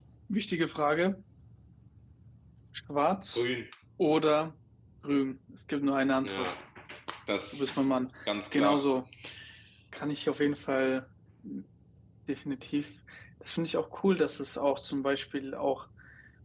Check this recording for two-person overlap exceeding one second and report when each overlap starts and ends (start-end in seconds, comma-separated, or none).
7.5-8.9